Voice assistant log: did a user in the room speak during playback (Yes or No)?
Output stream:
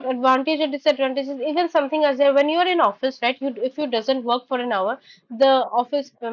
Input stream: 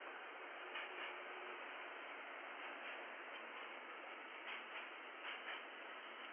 No